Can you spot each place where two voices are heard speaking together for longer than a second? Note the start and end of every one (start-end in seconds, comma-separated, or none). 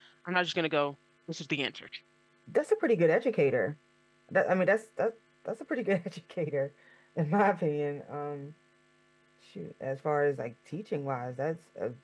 none